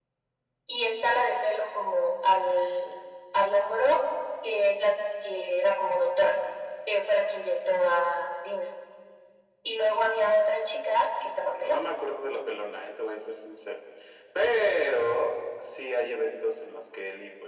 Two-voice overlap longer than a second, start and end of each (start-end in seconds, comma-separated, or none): none